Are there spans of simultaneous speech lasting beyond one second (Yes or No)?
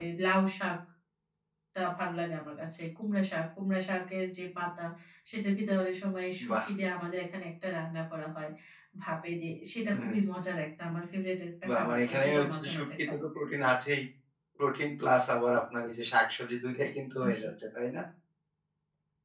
Yes